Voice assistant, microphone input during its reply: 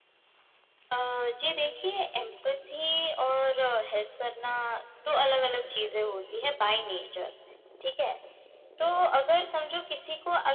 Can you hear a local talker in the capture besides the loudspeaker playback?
No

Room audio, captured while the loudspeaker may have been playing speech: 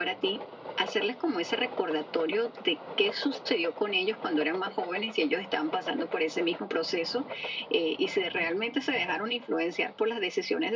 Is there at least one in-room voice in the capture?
No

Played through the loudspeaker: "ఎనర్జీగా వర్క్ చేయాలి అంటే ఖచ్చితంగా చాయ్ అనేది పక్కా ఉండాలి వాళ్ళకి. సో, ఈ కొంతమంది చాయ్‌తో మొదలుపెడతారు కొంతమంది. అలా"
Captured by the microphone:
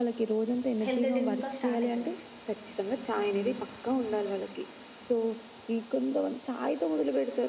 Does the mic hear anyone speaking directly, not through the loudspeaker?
Yes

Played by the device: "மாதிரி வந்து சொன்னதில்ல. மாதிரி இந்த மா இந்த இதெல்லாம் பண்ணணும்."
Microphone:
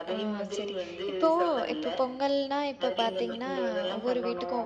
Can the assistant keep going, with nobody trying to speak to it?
No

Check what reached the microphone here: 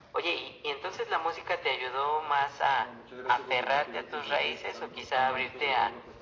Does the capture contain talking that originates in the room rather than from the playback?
Yes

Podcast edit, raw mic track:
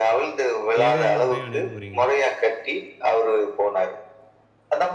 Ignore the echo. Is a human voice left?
Yes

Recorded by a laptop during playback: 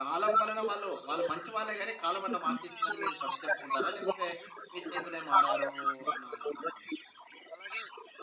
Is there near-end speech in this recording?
Yes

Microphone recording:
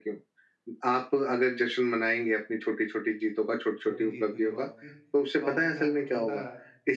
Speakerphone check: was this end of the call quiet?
No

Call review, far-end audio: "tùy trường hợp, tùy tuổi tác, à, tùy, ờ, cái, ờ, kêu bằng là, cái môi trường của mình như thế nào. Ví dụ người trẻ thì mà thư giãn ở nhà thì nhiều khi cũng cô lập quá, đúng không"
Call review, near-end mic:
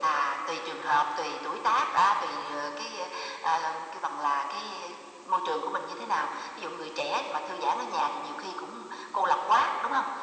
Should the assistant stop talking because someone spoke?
No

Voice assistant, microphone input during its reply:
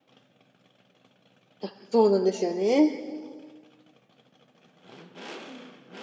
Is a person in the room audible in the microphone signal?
Yes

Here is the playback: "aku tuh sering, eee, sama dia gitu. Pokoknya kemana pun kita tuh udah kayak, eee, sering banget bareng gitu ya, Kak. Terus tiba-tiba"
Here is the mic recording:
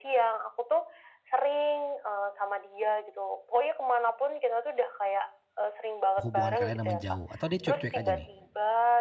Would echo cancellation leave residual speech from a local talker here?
Yes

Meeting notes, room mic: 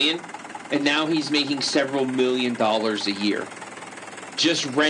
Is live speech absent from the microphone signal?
Yes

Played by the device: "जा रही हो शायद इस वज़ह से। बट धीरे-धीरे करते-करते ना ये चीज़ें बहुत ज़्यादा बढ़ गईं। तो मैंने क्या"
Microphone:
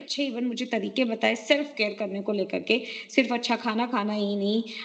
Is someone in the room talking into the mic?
Yes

